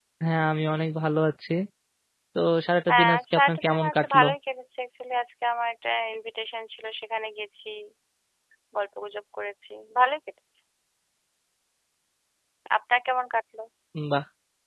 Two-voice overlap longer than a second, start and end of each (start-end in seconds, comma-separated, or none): 2.9-4.2